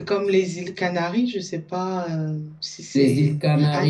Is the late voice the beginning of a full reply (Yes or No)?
Yes